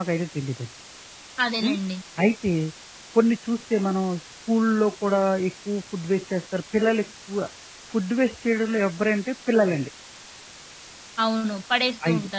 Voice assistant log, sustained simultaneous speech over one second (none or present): none